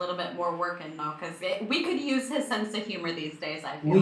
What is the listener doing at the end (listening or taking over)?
taking over